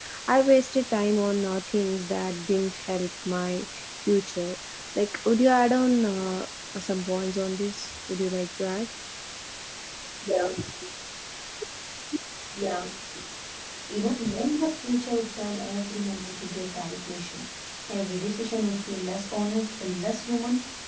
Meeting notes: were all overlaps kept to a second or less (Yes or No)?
Yes